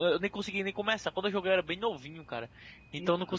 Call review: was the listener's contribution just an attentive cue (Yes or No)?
Yes